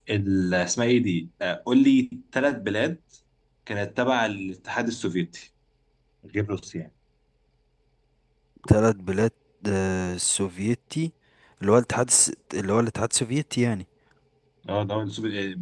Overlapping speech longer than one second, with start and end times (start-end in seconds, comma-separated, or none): none